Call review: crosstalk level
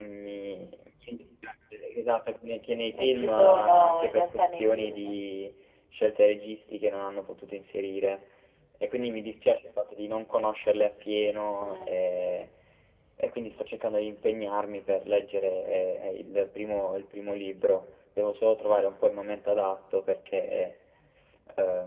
present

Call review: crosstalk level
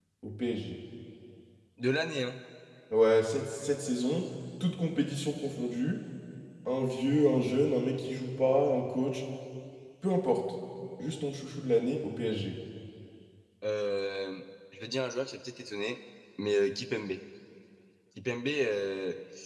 none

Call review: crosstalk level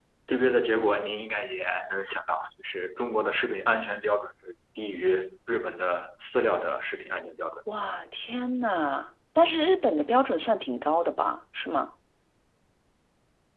none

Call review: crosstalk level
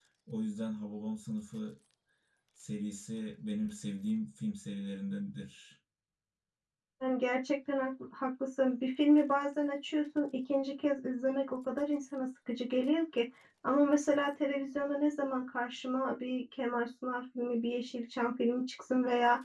none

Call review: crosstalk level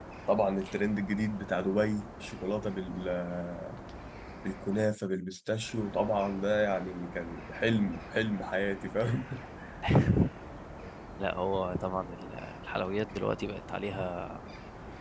none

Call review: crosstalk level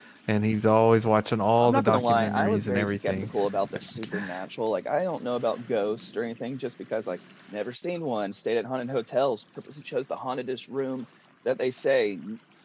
present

